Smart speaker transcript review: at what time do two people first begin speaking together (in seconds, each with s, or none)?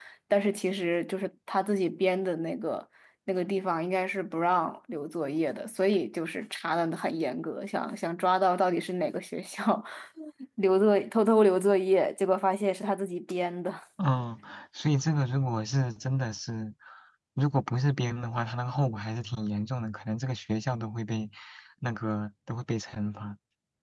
none